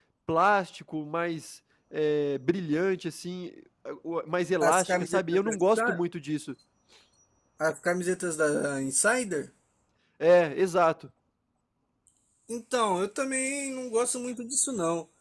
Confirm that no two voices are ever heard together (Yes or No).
No